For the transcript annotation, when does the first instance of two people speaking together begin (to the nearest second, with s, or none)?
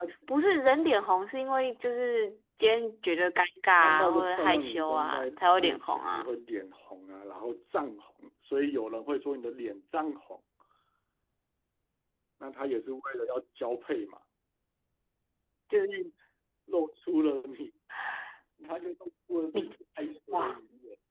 4 s